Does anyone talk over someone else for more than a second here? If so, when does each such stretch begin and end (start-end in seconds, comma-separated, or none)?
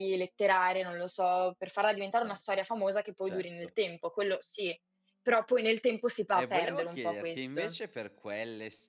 6.3-7.8